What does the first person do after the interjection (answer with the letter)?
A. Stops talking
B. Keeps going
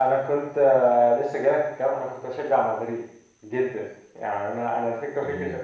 B